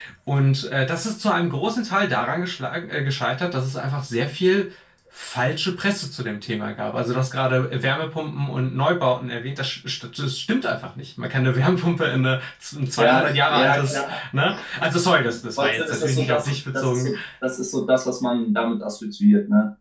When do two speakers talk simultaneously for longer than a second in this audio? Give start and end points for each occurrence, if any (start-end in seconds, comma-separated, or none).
13.0-14.2, 15.6-17.1